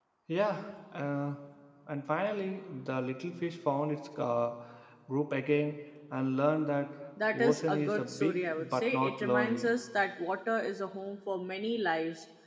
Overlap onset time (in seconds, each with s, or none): 7.3 s